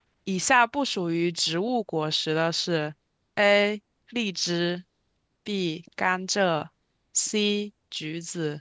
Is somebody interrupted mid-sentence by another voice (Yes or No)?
No